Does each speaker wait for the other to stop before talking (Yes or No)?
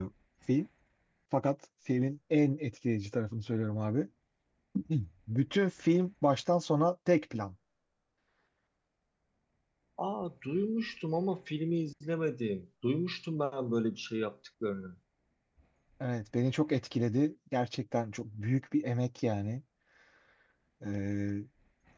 Yes